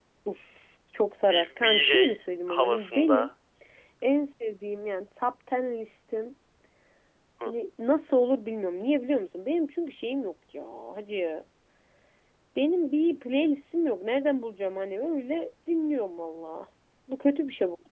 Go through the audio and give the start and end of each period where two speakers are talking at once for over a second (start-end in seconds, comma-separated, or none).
1.3-3.3